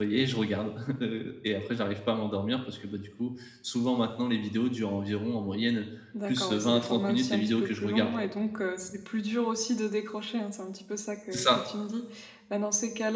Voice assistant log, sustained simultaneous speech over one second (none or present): present